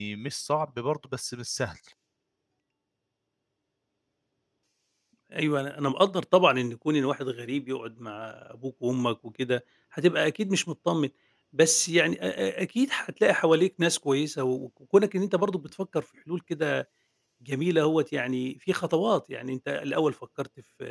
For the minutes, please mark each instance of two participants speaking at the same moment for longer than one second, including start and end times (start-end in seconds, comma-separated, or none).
none